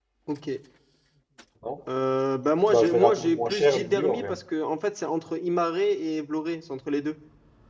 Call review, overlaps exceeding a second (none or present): present